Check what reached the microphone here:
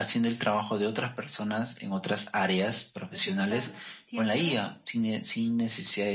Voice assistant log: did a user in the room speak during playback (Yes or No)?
Yes